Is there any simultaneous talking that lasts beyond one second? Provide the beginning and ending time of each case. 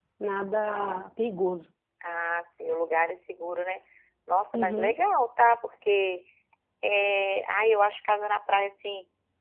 none

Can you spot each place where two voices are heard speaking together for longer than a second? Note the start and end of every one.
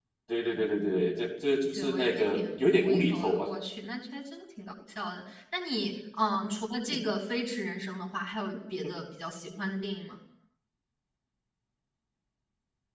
1.8-3.5

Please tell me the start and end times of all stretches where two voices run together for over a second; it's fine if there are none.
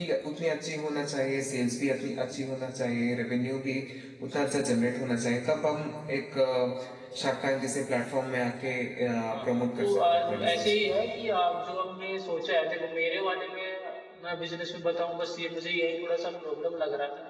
9.5-10.7

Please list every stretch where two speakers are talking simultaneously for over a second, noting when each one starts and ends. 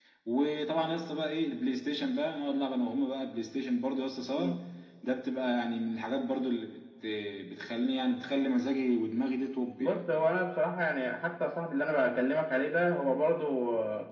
none

